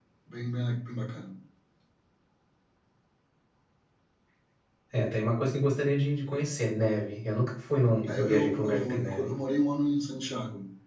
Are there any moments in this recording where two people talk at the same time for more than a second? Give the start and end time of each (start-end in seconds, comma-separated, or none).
8.1-9.3